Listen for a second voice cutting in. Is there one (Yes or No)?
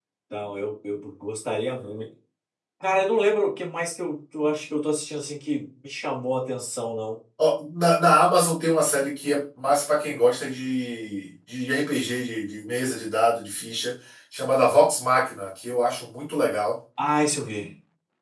No